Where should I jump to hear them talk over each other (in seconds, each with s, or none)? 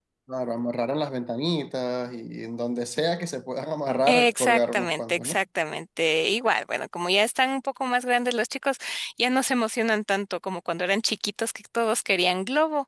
4.1 s